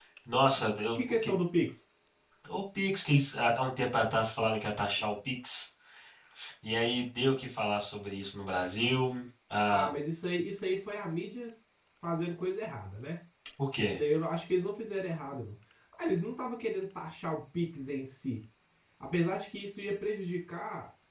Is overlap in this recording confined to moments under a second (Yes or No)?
Yes